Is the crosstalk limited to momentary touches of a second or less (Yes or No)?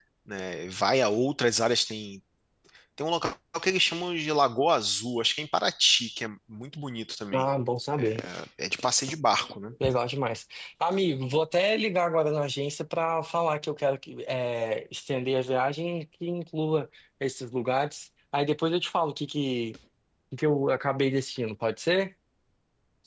Yes